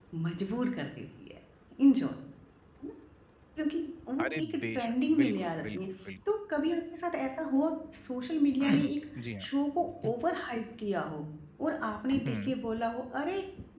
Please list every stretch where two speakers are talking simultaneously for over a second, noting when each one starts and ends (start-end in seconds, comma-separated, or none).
4.2-5.8